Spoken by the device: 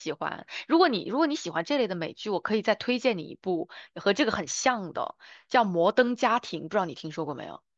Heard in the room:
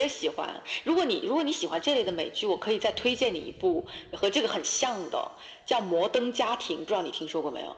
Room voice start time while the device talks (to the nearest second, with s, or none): none